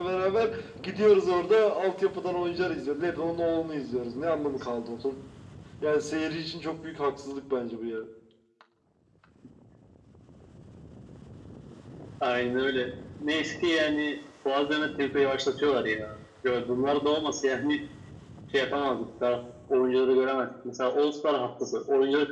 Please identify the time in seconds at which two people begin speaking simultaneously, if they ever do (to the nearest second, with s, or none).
none